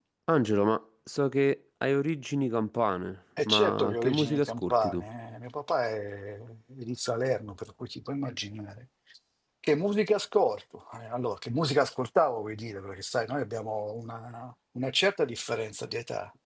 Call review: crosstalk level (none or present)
present